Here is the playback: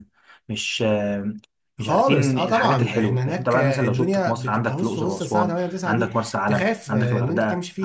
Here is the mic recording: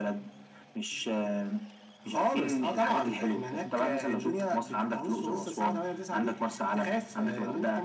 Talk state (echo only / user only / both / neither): echo only